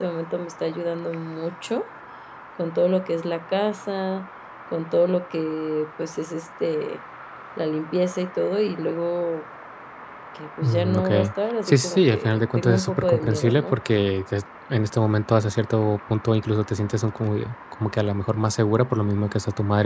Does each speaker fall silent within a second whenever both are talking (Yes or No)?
No